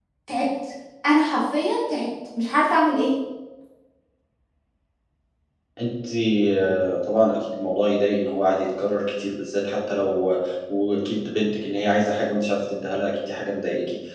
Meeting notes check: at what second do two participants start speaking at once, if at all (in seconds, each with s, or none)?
none